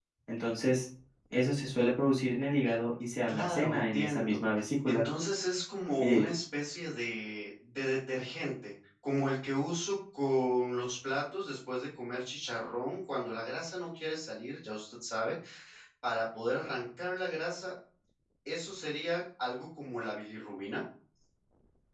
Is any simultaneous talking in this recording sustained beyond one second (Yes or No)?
Yes